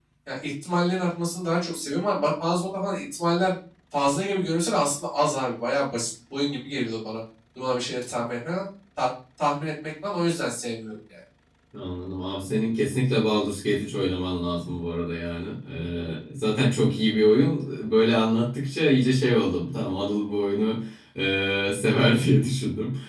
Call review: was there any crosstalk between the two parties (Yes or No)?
No